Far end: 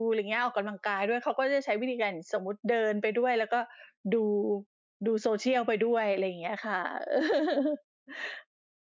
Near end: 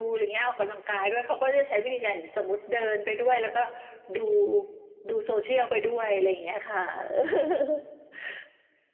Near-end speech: none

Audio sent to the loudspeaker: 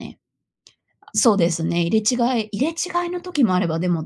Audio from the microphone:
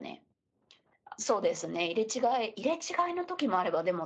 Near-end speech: none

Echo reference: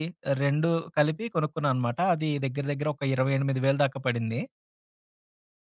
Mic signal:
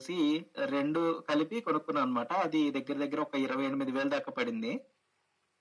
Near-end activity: none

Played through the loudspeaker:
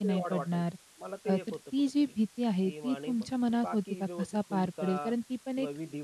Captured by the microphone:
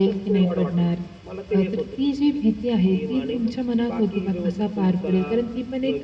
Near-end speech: none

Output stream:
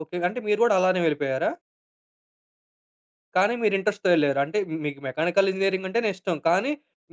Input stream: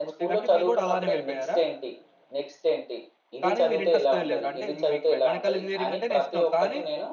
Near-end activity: present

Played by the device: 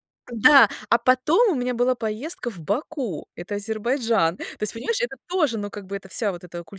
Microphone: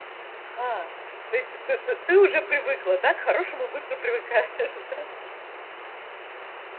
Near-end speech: present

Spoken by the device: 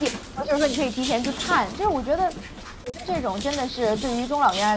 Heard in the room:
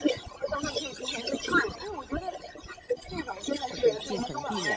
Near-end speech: present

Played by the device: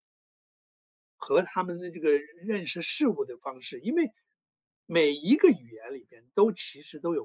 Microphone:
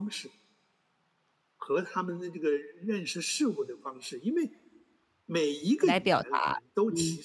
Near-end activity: present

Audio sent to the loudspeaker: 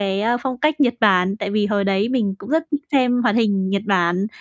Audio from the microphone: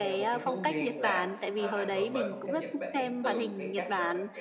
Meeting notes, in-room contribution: present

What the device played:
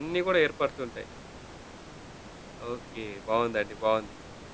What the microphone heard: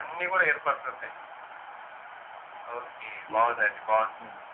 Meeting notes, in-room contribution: present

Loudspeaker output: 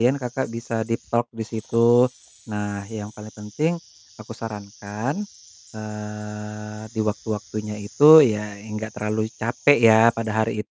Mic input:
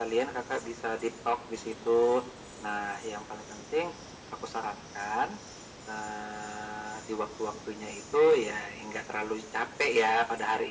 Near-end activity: none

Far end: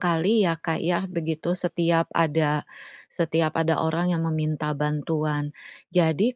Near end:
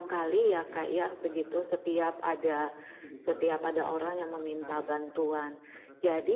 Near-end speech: present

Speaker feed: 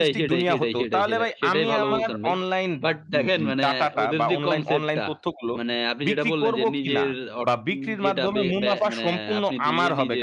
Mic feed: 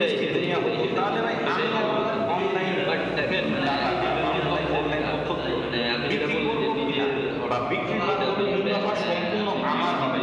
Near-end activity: present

